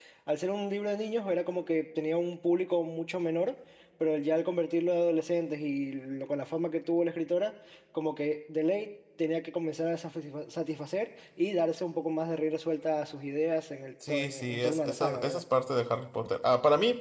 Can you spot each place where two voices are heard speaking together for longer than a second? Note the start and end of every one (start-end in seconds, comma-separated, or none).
14.1-15.4